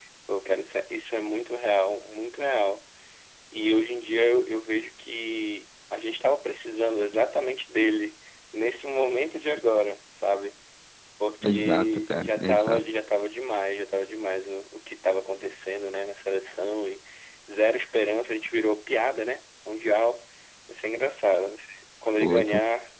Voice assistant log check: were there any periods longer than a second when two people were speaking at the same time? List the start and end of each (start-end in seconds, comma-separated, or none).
11.4-12.8